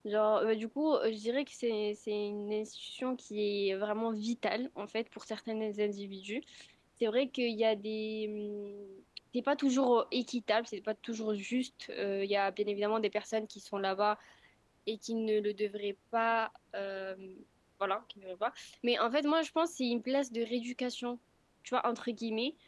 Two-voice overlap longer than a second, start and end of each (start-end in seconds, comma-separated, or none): none